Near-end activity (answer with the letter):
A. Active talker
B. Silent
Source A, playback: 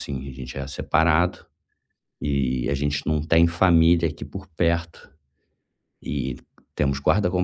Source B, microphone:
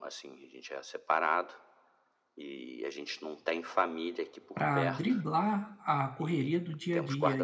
A